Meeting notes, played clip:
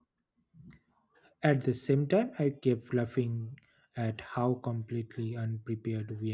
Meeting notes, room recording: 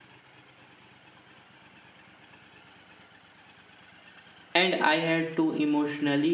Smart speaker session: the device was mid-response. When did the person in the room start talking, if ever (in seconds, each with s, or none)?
4.5 s